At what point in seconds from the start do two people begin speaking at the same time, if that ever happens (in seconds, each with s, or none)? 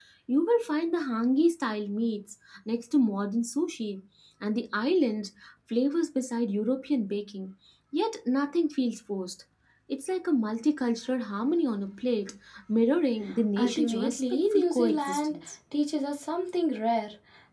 13.6 s